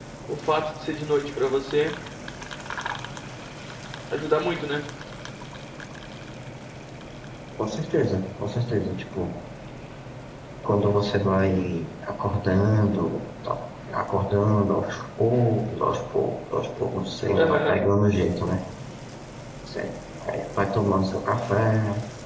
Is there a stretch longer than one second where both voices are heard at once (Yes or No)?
No